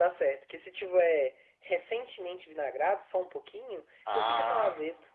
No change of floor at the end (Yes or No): No